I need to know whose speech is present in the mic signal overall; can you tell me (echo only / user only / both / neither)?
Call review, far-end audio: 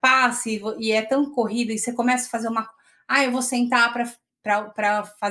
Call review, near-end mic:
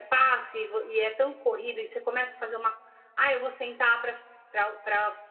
echo only